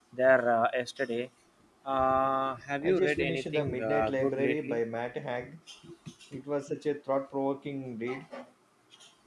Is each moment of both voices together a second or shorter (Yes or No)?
No